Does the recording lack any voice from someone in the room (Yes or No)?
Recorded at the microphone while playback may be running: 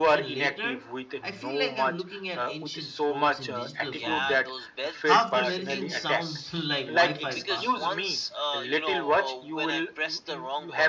No